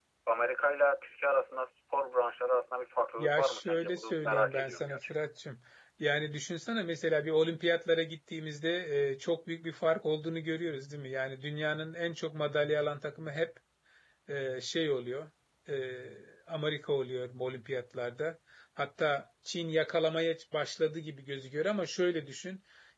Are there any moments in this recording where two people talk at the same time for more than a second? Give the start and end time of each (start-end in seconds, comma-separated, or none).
3.2-5.3